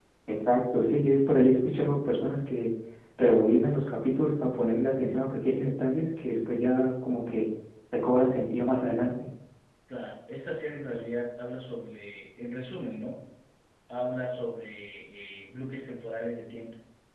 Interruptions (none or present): none